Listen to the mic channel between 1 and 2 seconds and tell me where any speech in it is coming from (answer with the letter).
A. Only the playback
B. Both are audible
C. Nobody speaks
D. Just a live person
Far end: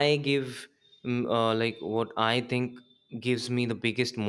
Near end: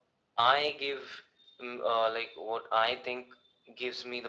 A